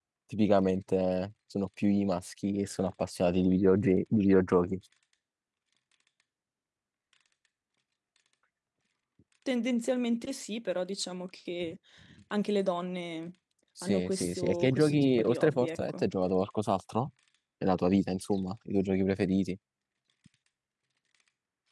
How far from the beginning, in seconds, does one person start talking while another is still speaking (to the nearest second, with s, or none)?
14 s